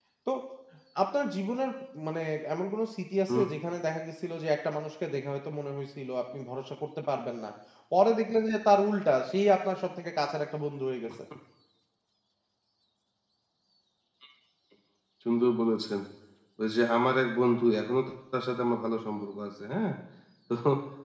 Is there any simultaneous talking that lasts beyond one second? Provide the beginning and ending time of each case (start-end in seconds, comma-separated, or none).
none